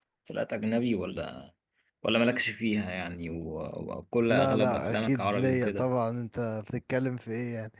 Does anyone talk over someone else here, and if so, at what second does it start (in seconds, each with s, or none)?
4.3 s